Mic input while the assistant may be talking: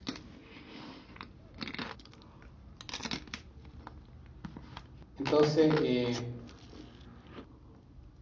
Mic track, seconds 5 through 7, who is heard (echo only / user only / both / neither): user only